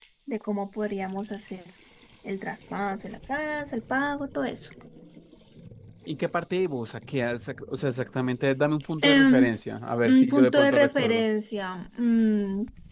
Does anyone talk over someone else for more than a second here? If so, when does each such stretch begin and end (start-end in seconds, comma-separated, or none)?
10.0-11.2